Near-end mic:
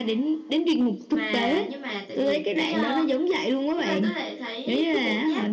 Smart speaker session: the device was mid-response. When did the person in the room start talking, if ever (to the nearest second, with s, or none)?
1 s